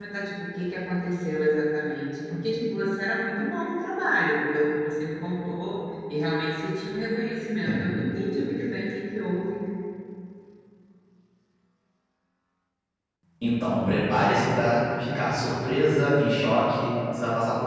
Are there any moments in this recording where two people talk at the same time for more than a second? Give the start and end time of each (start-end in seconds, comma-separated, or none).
none